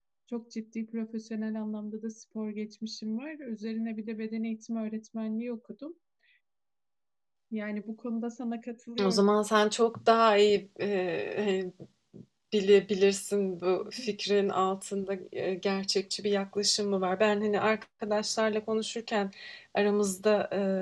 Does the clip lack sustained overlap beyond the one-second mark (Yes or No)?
Yes